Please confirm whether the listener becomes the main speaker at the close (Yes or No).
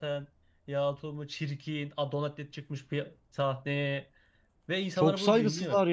Yes